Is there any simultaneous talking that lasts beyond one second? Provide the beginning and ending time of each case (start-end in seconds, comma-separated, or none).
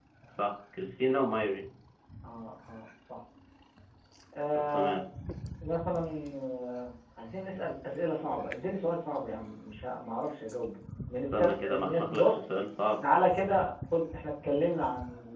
11.2-12.4